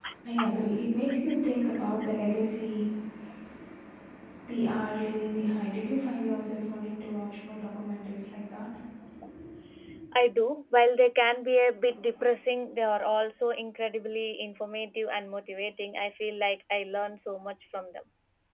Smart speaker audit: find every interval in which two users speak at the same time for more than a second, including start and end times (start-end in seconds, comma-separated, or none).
none